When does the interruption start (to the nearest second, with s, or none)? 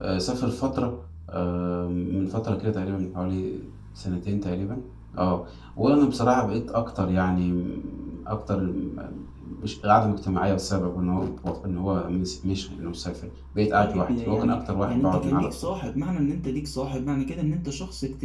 14 s